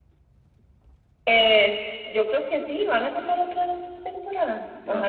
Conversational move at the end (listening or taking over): taking over